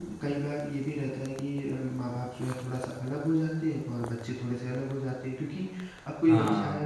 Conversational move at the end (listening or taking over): listening